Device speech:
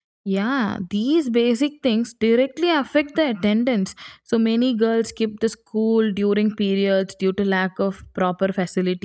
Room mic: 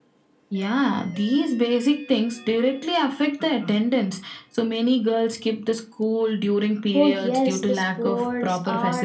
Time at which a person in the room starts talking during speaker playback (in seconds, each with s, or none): 6.9 s